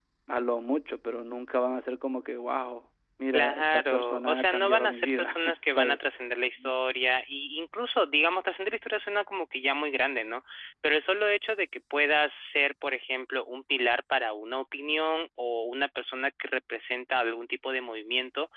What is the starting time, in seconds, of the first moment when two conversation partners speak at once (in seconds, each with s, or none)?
3.3 s